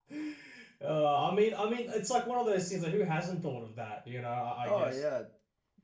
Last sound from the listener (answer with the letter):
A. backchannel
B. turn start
B